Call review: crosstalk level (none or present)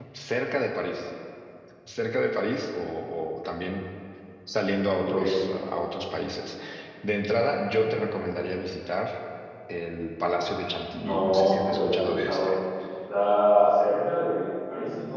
present